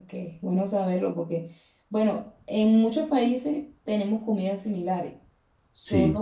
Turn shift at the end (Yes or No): No